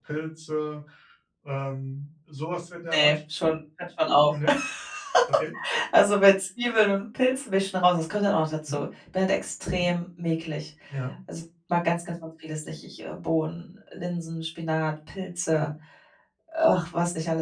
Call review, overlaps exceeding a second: none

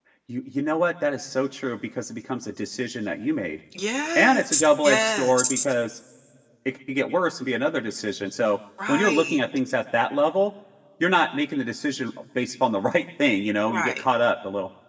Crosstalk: present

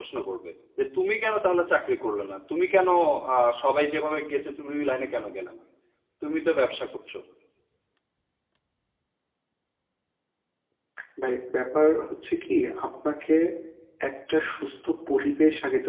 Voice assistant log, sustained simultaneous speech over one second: none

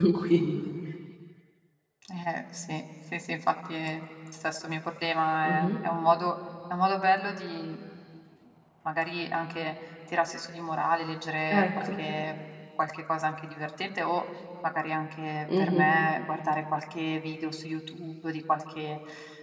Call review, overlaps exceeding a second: none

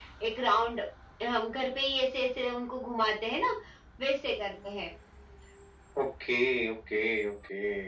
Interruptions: none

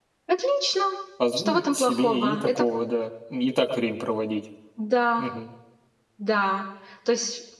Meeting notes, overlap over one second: present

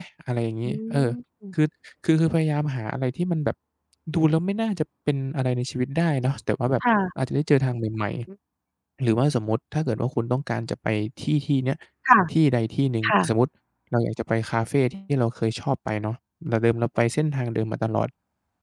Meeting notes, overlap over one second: none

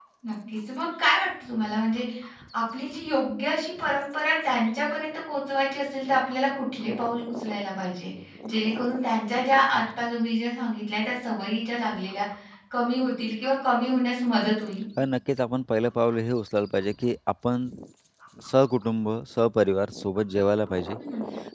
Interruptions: none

